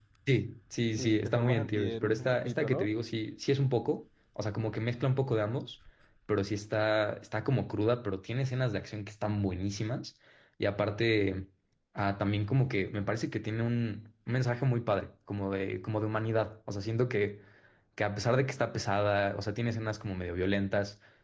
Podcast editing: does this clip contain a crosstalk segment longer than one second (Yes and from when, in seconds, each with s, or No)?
Yes, from 1.0 s